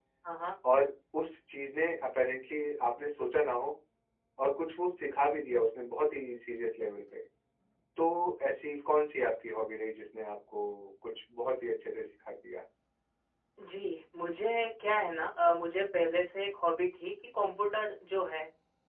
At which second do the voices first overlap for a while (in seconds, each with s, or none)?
none